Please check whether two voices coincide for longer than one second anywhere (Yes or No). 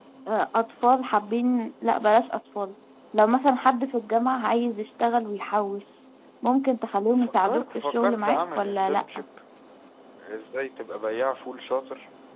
Yes